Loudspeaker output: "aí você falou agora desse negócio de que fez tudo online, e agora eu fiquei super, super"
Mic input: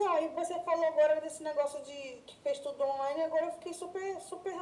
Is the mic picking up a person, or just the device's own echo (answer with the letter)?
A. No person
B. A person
A